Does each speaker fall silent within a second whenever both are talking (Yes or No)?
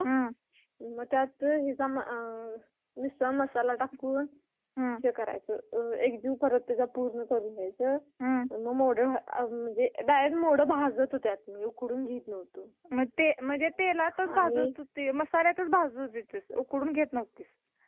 Yes